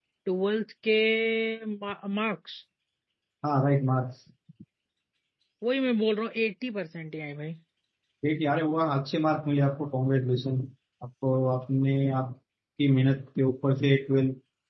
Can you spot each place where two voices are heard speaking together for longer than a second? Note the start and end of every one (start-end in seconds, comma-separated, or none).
none